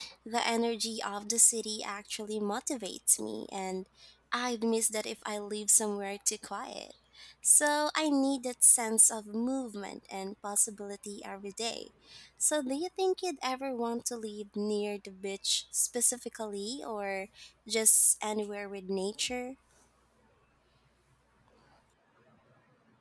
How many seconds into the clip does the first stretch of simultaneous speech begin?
none

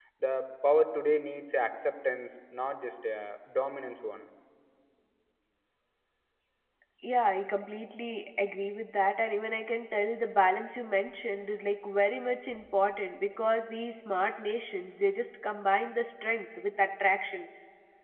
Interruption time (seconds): none

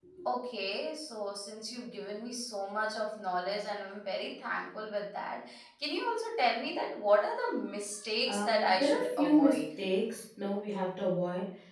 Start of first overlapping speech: 8.3 s

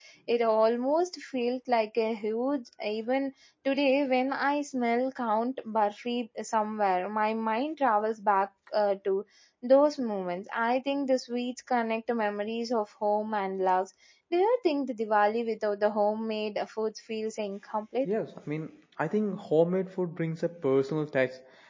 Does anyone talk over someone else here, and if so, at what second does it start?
none

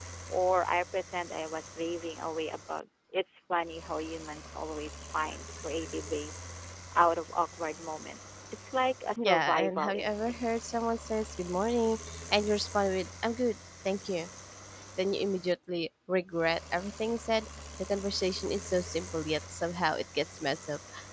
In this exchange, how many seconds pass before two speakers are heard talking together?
9.2 s

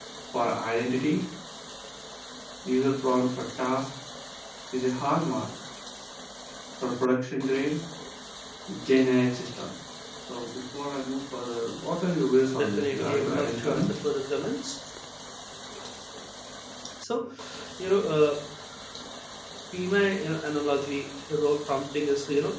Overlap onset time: 12.5 s

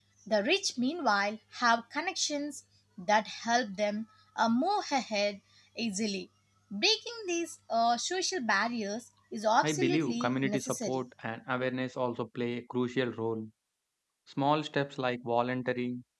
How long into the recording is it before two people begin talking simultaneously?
9.6 s

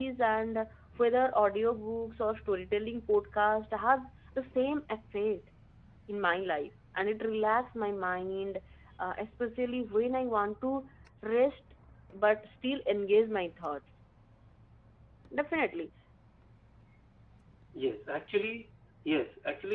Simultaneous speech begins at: none

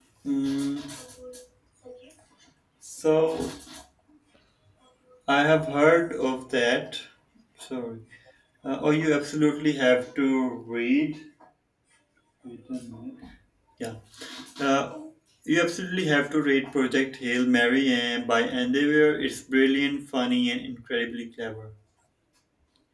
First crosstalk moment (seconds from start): none

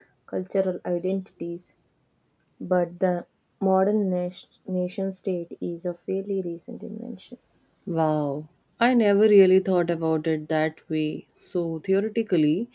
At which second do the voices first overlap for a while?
none

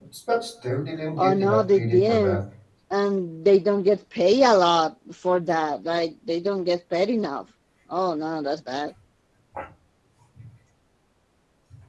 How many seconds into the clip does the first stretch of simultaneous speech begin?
1.2 s

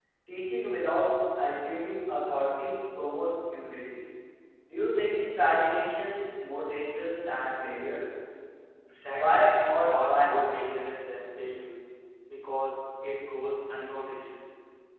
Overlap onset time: 9.1 s

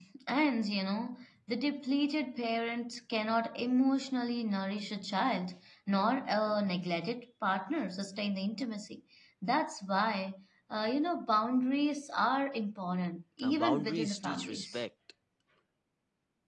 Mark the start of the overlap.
13.4 s

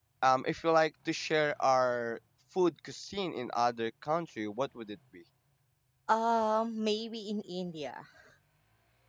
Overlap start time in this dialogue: none

